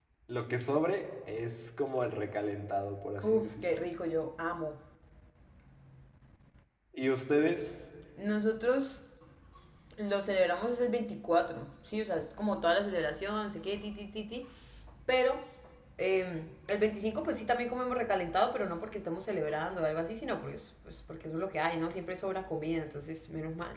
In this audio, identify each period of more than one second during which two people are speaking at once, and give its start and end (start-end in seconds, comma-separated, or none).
none